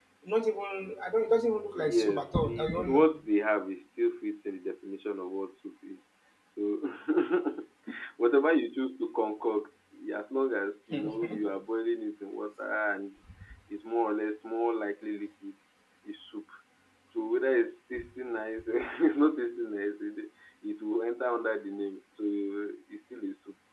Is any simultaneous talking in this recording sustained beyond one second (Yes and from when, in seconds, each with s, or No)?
Yes, from 1.8 s